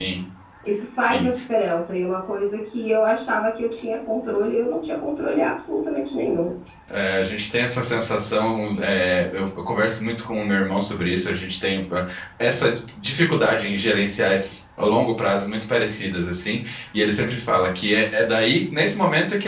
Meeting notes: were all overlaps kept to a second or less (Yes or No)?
Yes